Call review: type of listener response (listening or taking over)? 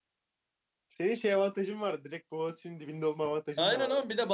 taking over